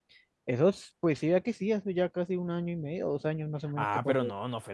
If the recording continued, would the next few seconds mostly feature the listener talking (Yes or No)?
Yes